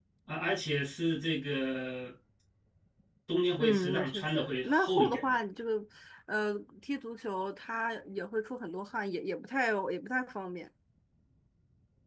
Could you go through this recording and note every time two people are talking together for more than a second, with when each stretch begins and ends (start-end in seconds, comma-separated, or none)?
3.6-5.4